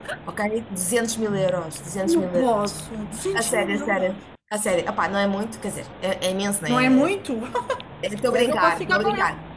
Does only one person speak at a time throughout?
No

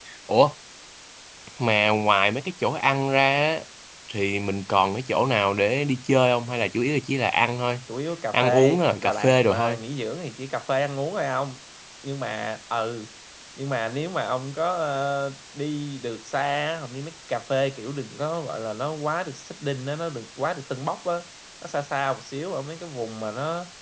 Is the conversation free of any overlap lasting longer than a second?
No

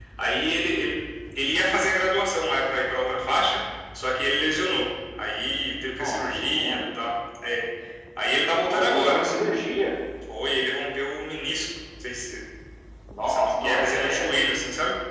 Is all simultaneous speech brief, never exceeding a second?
No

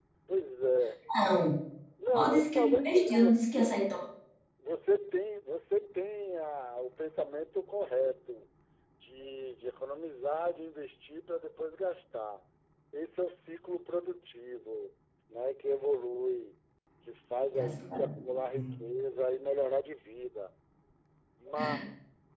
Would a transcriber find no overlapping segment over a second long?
No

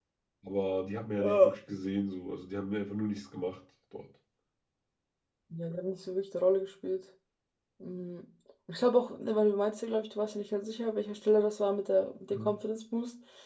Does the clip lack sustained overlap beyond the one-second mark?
Yes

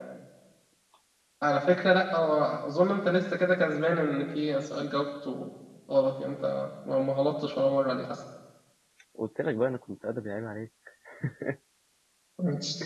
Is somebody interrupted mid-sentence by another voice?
No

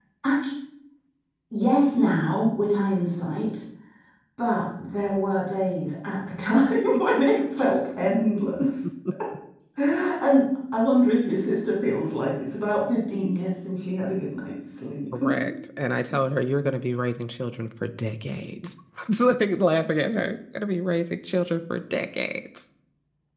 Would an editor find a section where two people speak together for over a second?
No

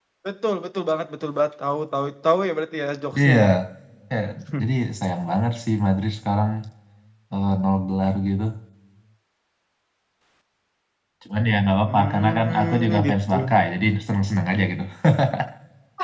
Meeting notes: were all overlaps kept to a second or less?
No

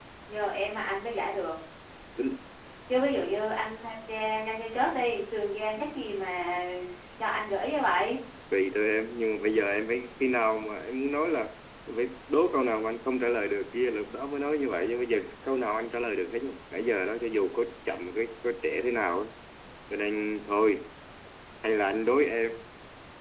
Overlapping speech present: No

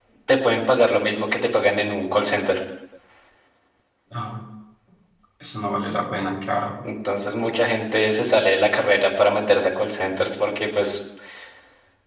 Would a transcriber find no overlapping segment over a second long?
Yes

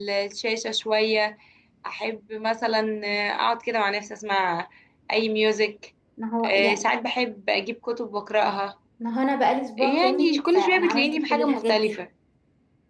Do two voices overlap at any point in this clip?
Yes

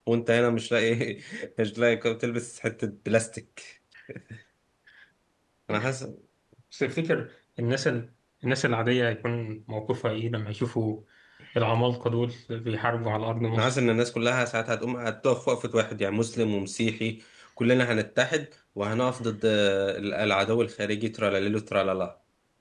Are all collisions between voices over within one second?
Yes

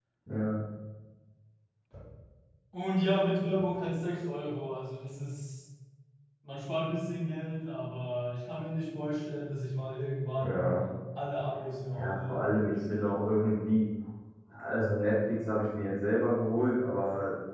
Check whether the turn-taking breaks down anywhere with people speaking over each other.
Yes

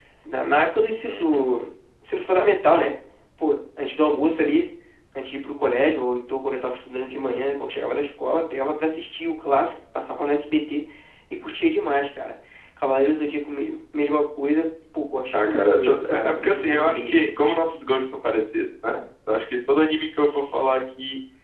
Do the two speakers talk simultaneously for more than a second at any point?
Yes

